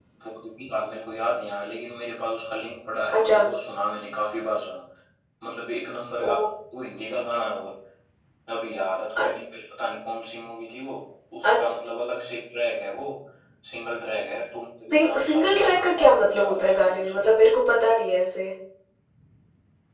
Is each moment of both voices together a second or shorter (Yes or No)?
No